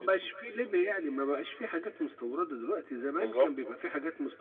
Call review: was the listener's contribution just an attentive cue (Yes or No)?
Yes